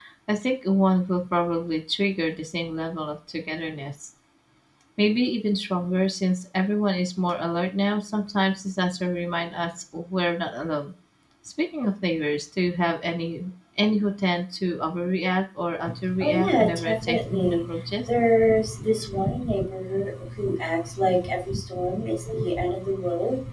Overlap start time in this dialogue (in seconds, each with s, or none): 16.0 s